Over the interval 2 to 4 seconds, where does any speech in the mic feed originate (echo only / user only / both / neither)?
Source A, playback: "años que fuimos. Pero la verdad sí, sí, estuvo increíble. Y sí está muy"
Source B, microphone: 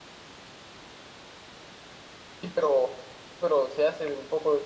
user only